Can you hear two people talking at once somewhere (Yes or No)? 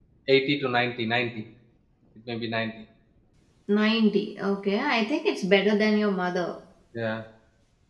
No